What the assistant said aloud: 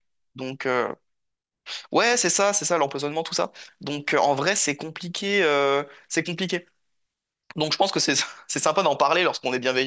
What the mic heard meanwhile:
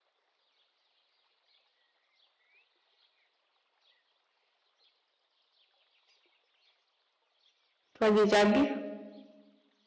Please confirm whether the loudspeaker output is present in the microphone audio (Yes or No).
No